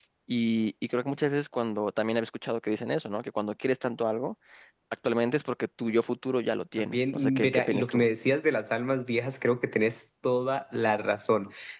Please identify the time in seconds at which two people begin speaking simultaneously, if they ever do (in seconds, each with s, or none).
6.8 s